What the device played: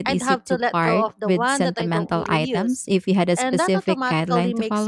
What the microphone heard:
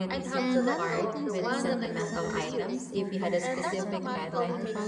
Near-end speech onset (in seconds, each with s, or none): 0.3 s